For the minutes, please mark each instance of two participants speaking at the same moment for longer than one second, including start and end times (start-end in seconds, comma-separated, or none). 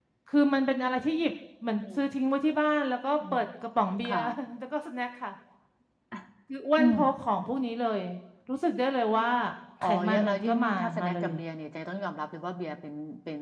9.8-11.3